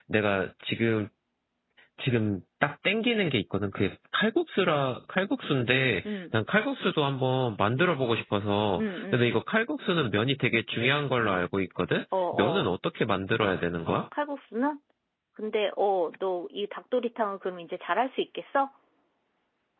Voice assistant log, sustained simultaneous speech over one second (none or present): none